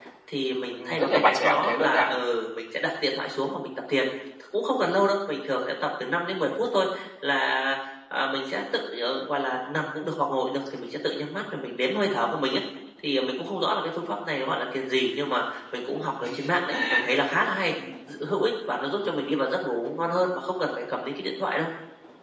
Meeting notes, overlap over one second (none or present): present